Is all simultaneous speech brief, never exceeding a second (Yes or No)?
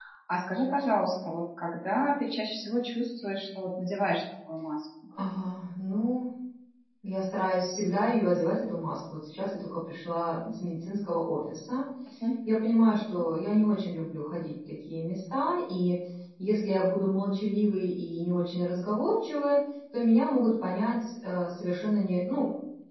Yes